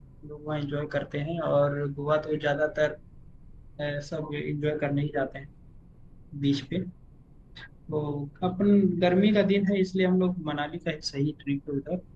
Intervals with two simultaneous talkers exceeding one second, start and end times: none

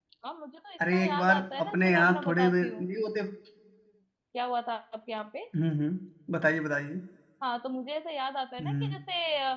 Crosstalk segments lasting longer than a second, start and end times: 0.9-2.8

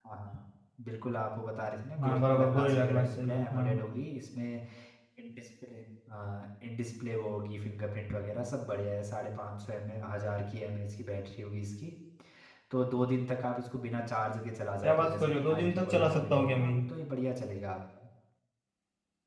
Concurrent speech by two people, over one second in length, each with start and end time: 2.0-3.8, 14.8-16.7

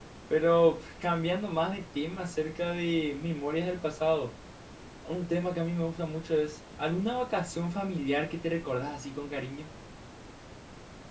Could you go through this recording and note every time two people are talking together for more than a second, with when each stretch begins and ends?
none

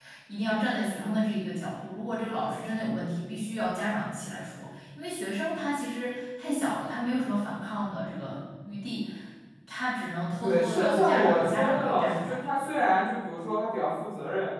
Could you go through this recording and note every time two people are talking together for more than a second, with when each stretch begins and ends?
10.4-12.4

